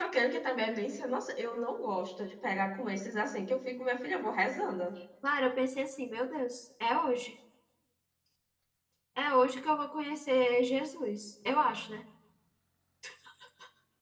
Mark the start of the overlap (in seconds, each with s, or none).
none